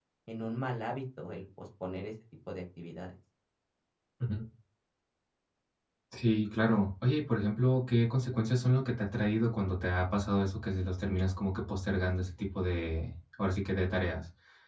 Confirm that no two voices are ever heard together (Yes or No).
Yes